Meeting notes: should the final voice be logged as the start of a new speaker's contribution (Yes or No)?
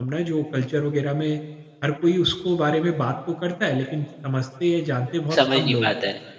Yes